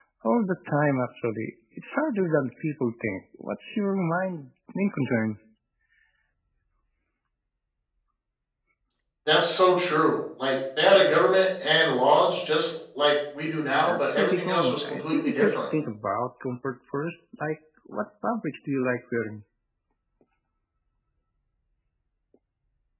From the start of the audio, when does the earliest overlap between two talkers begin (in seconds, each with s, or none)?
13.9 s